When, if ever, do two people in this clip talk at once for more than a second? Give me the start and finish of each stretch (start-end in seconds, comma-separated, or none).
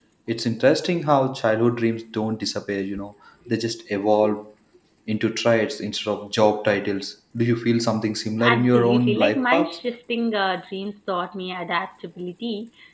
8.4-9.8